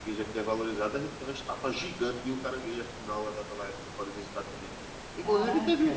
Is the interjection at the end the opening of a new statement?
No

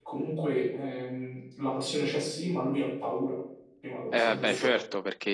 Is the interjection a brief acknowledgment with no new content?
No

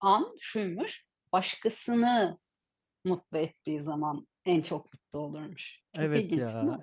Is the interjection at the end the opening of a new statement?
Yes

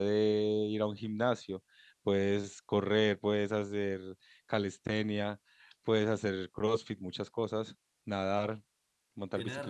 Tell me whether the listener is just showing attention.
No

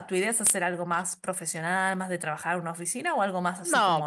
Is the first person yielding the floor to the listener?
Yes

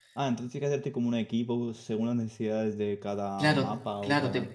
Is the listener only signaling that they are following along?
No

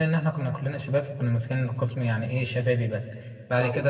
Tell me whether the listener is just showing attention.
Yes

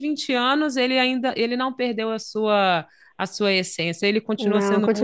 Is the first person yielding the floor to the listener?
Yes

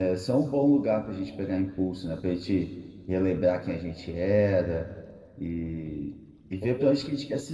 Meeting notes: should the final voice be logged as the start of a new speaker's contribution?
No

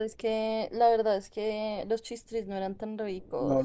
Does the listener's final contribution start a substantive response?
Yes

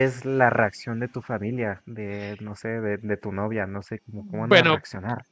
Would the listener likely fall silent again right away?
No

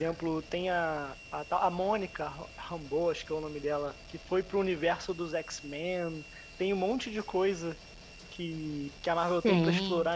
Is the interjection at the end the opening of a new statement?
No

